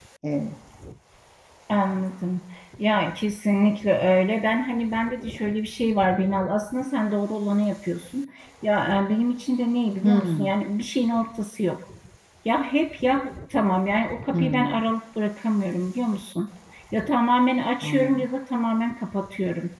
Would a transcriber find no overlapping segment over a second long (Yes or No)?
Yes